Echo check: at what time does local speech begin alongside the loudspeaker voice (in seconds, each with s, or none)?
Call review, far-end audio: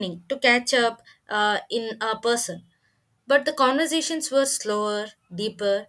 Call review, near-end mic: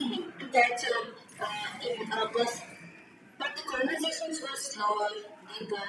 none